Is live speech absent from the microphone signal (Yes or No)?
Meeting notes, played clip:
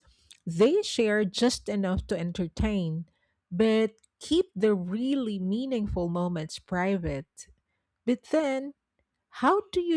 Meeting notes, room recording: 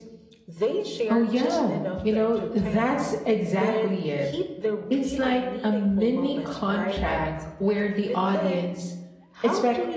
No